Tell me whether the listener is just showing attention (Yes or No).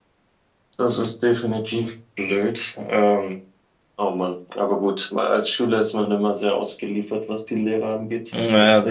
No